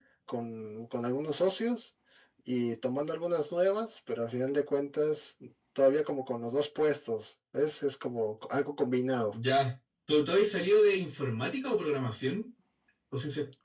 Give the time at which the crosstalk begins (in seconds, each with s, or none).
none